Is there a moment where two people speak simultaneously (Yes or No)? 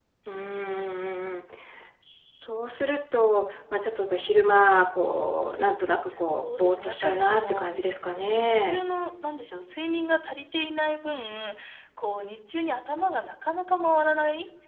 Yes